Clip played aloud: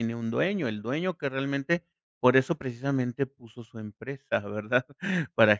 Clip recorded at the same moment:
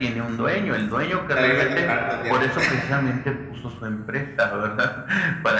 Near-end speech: present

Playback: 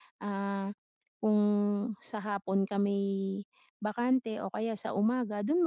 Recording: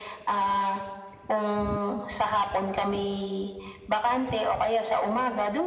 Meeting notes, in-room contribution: none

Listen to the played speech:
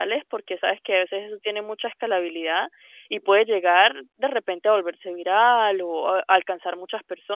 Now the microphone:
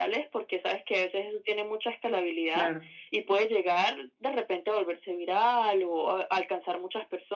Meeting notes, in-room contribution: present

